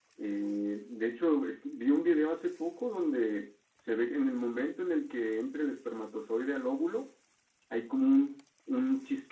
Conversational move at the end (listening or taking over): listening